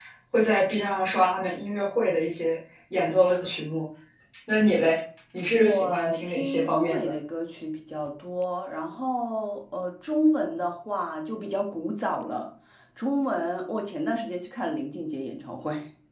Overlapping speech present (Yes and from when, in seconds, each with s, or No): Yes, from 5.5 s